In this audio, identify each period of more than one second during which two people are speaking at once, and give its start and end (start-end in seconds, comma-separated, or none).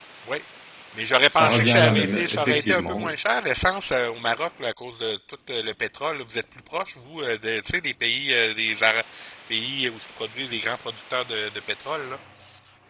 1.3-3.1